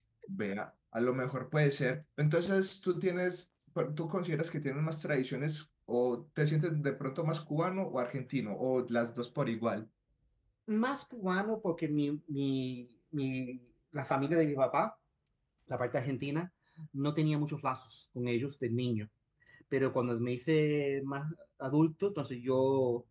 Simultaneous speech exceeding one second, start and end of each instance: none

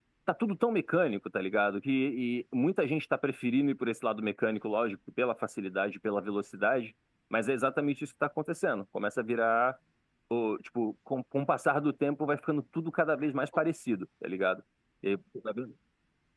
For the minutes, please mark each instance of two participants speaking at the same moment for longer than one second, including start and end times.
none

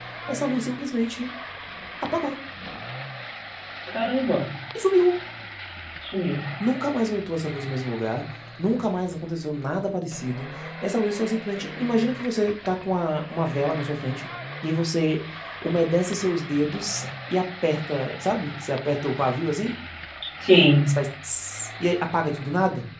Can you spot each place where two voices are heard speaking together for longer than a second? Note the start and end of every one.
none

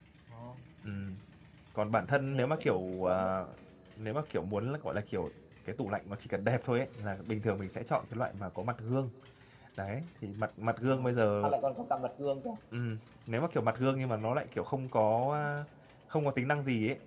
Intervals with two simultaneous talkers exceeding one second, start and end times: 1.9-3.3

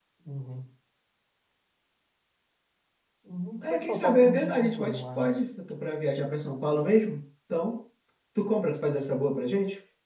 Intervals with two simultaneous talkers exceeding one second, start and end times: 3.6-5.3

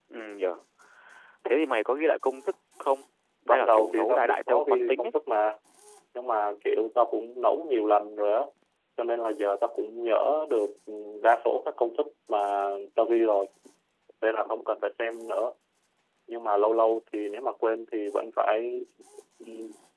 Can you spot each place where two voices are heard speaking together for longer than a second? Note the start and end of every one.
3.5-5.1

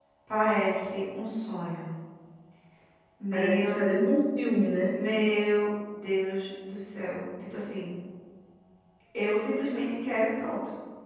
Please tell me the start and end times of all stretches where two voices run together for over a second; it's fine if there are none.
none

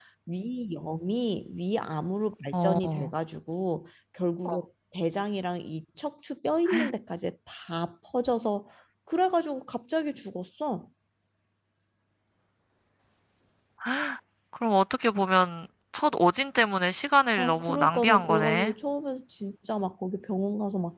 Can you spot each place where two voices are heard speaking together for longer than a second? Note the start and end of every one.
17.4-18.7

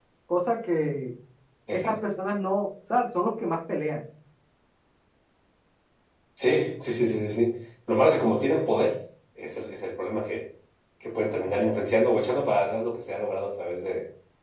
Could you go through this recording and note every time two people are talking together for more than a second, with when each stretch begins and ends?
none

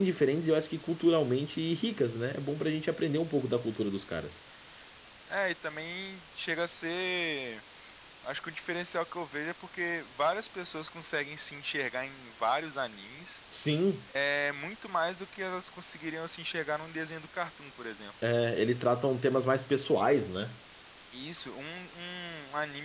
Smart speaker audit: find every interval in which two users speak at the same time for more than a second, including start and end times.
none

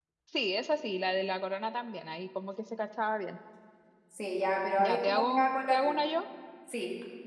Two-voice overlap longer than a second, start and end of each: 4.8-6.0

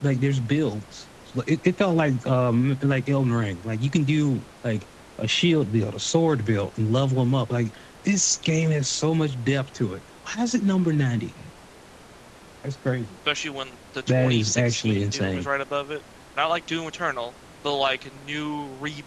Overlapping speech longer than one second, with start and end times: 14.1-15.5

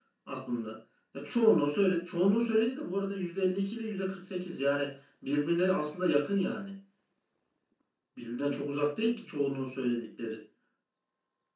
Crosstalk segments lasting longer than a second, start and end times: none

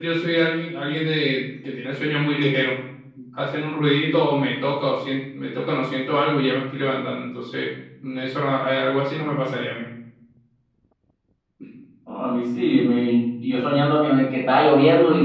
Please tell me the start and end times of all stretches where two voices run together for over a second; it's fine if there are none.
none

